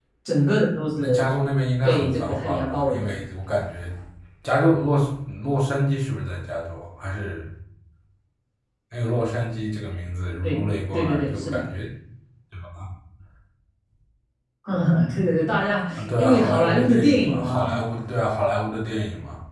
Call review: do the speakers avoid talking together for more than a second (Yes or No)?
No